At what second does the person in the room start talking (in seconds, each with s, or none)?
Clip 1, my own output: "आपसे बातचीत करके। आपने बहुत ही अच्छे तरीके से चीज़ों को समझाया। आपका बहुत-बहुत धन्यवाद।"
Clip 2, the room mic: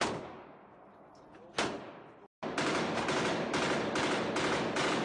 none